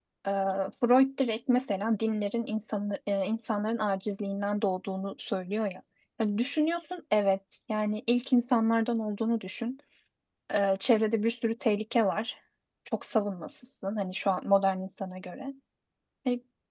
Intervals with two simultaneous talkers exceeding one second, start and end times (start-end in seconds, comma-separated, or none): none